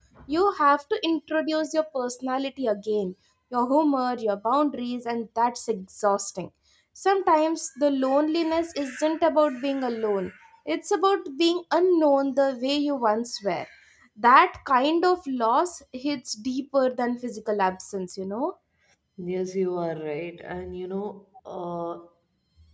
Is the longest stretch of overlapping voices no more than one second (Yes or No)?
Yes